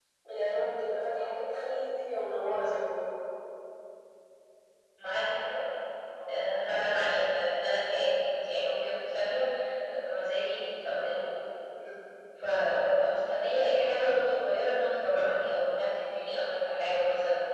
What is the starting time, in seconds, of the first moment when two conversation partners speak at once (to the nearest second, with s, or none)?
none